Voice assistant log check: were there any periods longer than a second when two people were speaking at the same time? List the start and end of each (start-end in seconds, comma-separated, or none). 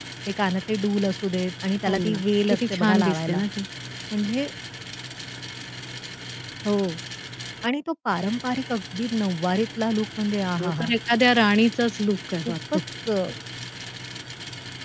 1.9-3.4